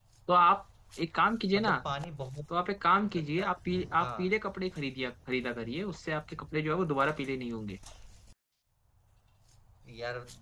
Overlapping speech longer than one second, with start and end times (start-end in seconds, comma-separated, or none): none